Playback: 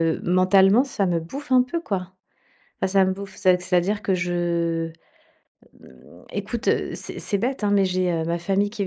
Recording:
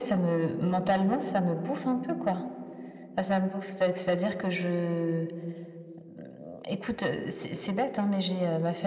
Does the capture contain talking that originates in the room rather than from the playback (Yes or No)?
No